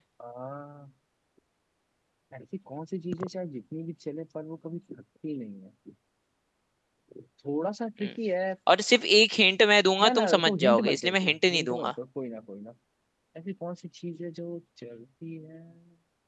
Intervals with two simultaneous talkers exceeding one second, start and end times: 10.0-11.9

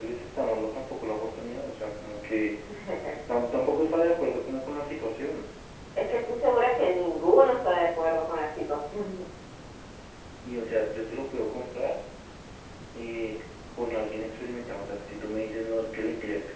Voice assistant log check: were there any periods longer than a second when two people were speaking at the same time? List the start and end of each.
none

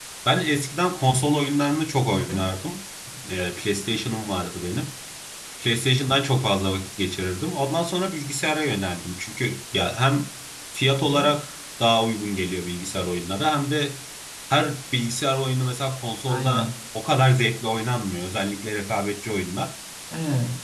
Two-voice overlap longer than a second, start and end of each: none

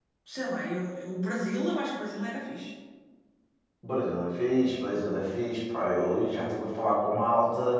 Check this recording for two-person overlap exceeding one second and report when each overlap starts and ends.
none

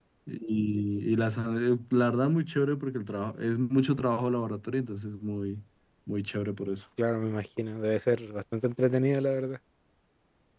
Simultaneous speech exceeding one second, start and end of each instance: none

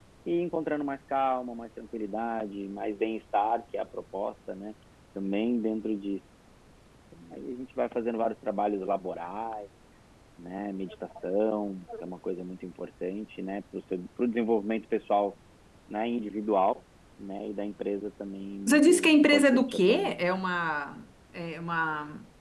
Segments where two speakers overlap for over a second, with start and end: 18.7-20.2

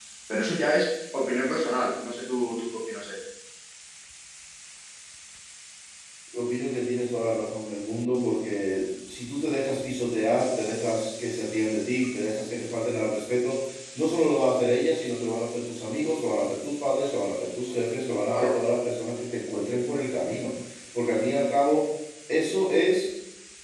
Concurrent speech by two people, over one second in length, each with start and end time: none

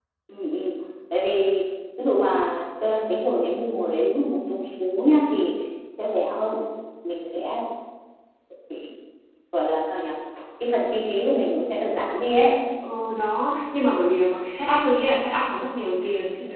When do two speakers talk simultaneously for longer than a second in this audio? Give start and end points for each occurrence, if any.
none

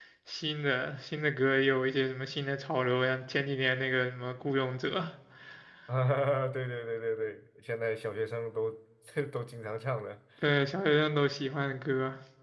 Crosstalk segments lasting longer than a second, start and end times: none

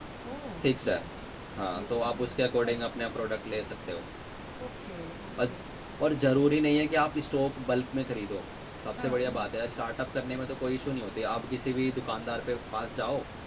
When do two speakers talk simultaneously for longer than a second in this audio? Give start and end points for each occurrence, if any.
1.8-3.1

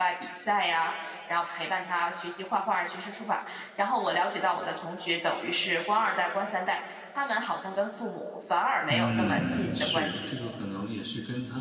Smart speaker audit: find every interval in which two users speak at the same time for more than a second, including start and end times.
8.9-10.3

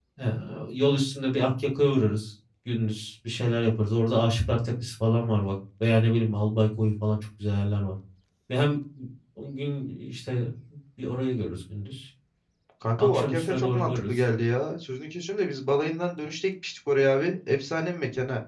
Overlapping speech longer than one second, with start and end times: 13.0-14.2

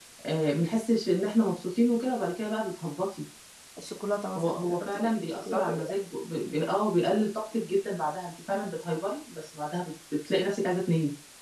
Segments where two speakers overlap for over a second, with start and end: 4.4-5.9

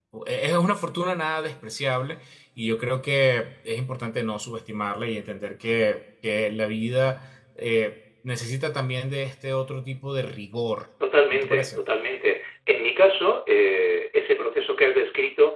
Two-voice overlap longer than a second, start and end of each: none

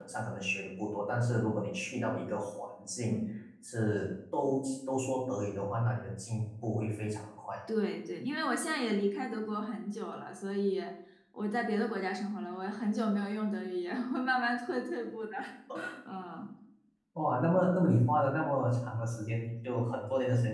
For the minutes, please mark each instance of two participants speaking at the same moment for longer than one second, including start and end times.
none

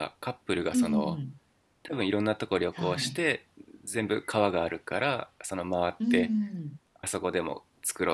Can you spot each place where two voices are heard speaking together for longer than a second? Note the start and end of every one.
none

